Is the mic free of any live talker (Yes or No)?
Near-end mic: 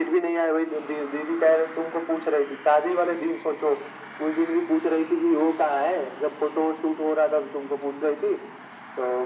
Yes